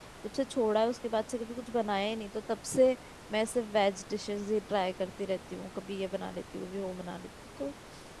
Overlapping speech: No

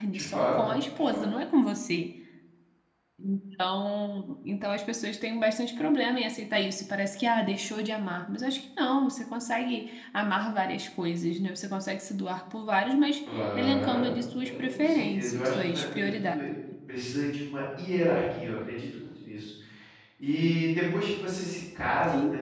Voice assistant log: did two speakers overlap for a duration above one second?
Yes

